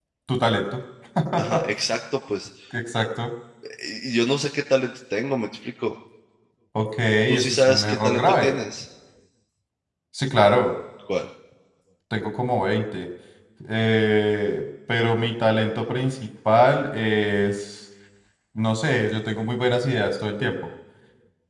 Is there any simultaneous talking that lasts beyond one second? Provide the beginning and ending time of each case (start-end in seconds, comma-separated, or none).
7.3-8.5